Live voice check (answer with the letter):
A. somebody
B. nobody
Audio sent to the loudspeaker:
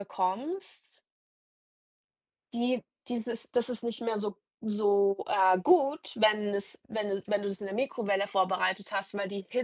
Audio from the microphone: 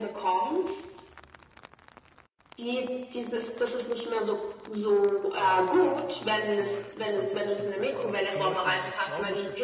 A